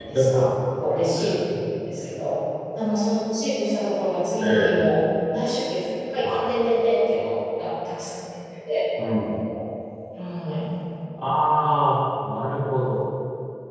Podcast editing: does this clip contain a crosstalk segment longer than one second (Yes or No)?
No